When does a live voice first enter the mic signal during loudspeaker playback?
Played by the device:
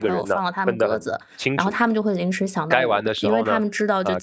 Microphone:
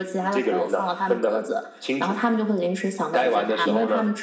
3.2 s

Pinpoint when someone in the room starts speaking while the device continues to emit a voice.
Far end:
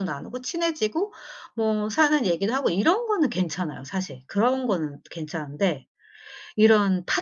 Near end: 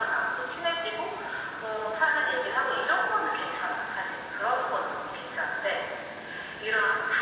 none

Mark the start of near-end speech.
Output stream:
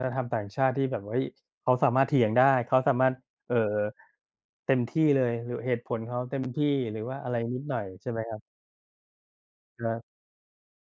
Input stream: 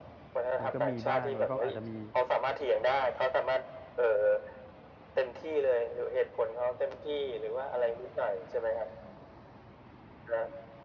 0.6 s

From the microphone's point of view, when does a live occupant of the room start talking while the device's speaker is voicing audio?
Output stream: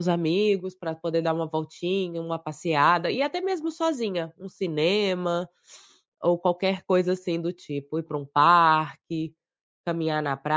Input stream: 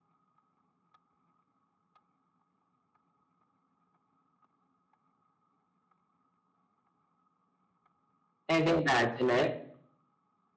8.5 s

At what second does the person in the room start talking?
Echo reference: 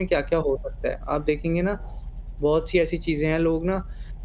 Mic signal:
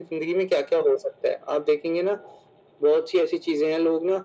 none

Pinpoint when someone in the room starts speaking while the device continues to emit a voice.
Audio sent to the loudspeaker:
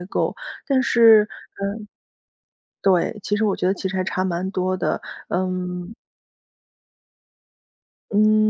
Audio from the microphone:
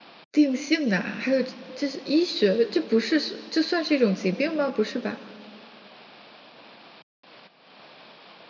0.3 s

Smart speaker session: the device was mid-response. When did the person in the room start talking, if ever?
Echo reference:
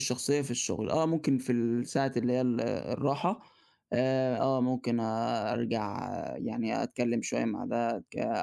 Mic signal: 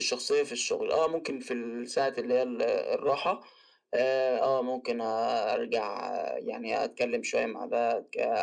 none

